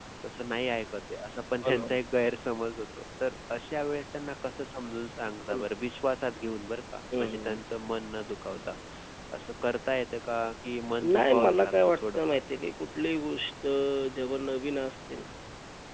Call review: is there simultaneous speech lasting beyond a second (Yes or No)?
Yes